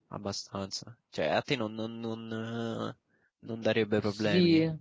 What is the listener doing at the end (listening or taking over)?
taking over